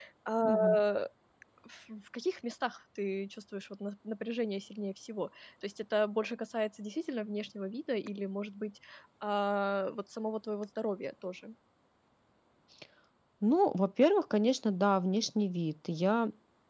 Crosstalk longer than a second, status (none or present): none